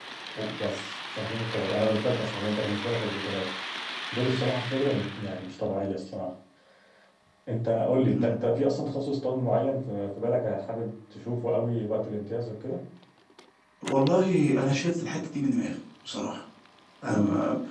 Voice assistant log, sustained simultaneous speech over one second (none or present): none